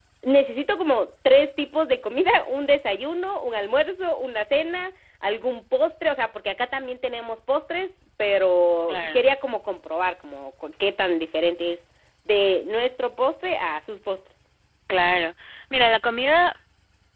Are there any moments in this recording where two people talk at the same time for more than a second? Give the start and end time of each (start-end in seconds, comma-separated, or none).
none